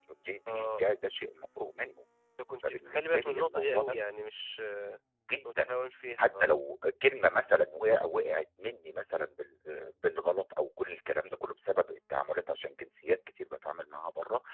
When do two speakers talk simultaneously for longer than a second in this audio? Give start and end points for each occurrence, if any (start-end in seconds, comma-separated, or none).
2.6-4.0